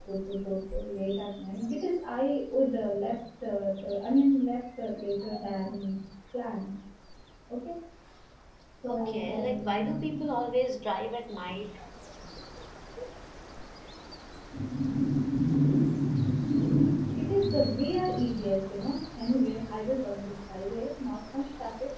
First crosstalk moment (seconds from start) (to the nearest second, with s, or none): 9 s